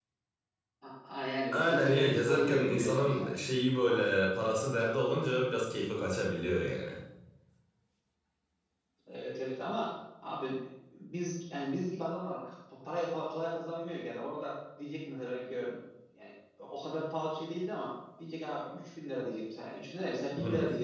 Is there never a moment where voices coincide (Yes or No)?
No